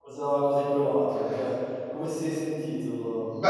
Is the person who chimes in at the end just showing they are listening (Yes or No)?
No